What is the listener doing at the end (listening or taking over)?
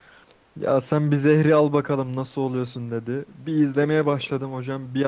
listening